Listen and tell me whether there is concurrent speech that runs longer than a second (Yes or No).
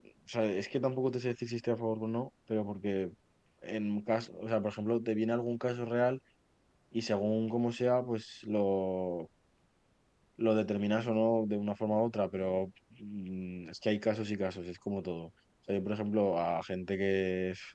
No